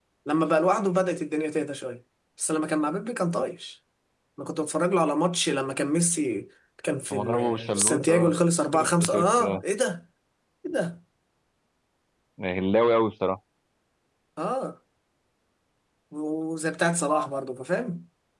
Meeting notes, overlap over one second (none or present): present